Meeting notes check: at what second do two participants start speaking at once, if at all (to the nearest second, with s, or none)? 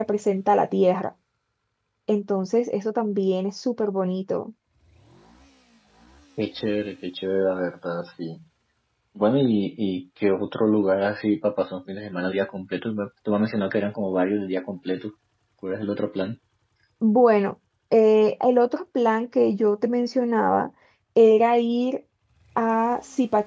none